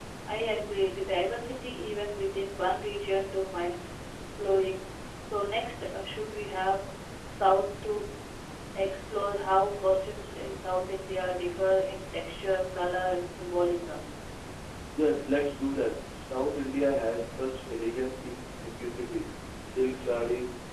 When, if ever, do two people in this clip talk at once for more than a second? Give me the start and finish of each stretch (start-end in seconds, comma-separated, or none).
none